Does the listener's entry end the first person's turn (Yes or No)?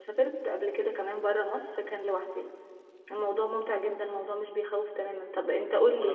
Yes